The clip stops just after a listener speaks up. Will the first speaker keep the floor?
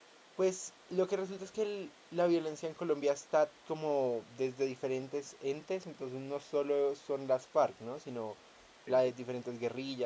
Yes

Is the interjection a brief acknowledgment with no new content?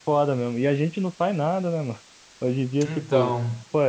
Yes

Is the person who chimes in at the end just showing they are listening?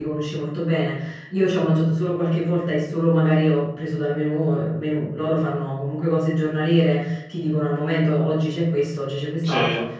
Yes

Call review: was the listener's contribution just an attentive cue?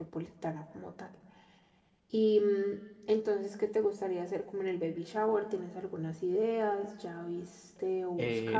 No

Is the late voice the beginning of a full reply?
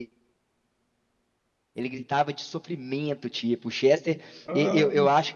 No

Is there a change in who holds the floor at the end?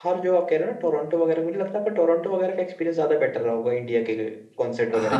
Yes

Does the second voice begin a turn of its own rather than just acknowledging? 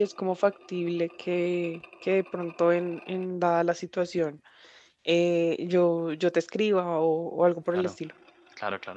Yes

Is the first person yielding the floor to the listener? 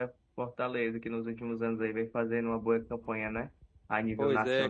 Yes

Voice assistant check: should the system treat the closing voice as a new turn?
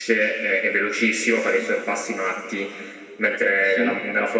No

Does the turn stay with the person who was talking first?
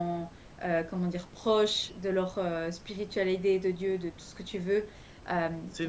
Yes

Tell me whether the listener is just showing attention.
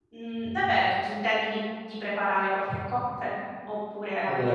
No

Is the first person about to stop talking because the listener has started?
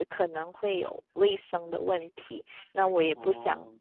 No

